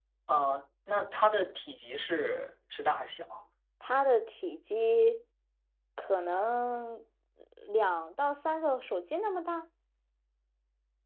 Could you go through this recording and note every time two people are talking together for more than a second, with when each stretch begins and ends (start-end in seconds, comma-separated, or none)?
none